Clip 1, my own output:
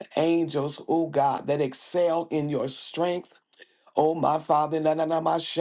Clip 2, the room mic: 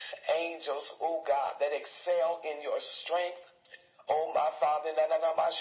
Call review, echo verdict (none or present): present